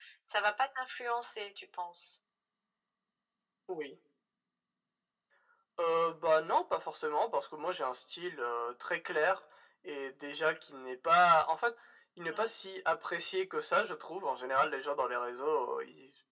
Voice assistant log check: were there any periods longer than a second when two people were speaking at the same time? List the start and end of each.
none

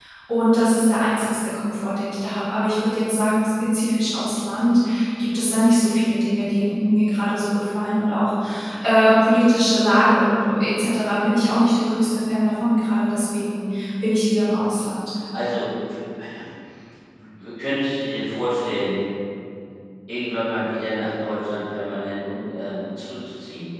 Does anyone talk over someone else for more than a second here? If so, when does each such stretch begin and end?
none

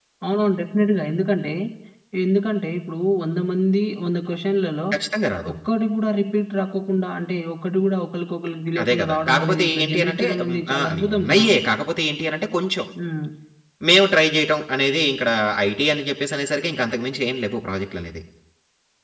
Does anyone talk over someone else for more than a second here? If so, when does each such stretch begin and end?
8.8-11.4

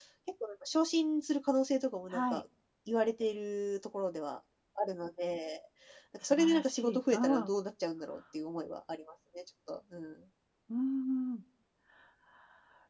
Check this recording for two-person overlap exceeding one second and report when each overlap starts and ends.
6.2-7.5

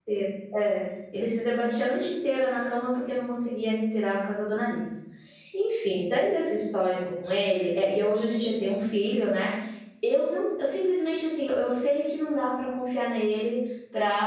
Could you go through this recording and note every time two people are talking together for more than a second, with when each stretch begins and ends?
none

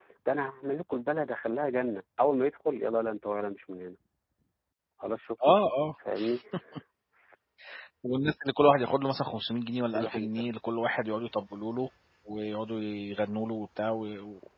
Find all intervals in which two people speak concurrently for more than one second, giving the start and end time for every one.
none

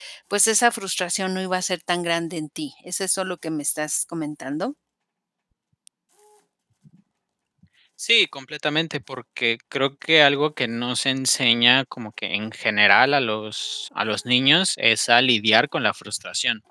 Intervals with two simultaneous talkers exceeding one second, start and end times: none

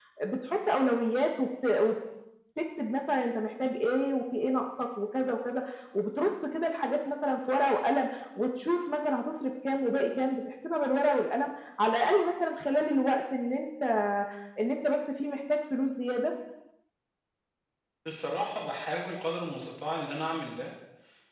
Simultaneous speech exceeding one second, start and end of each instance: none

